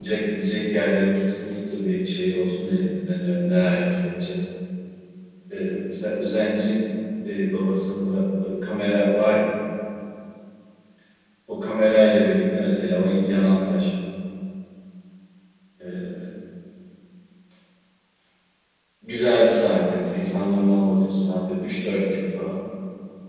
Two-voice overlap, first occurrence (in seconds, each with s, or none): none